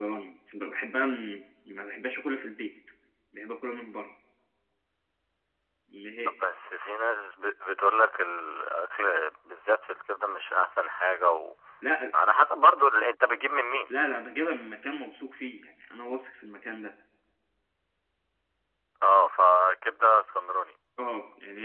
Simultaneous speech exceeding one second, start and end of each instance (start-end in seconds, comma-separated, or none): none